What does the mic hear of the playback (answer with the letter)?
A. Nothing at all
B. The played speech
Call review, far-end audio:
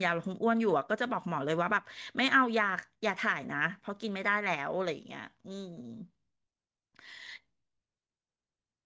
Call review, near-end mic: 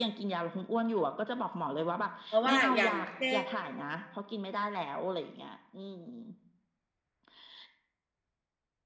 B